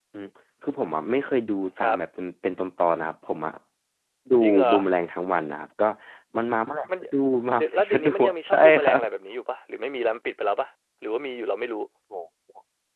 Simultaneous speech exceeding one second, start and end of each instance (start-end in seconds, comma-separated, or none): 7.6-9.0